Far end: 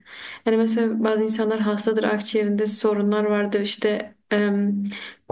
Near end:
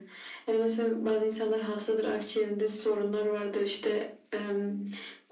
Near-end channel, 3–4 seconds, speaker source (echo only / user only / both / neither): echo only